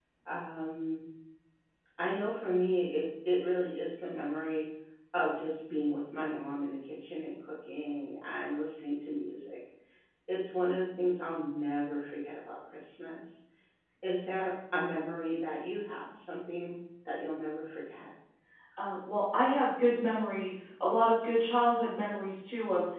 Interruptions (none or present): none